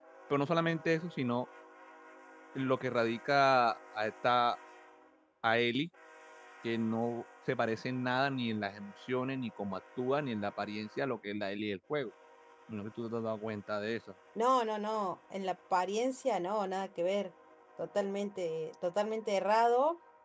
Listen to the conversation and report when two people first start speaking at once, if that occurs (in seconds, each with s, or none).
none